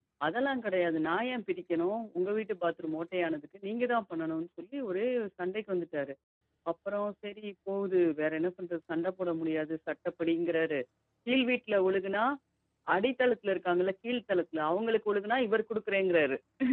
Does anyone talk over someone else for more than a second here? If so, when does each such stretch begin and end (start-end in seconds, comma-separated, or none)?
none